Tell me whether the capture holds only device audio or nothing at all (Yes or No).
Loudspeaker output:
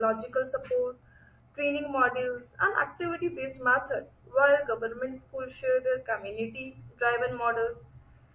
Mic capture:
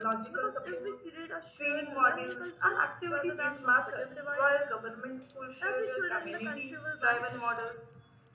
No